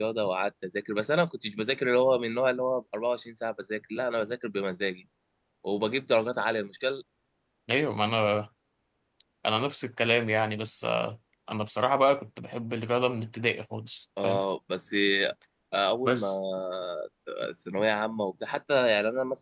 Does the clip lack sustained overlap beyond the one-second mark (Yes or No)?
Yes